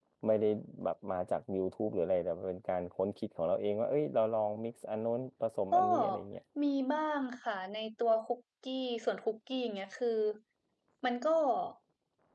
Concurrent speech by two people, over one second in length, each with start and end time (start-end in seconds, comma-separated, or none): none